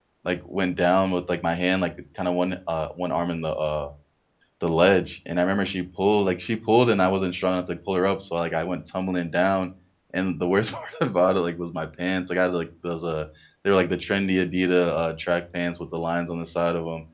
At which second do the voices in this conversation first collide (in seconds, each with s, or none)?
none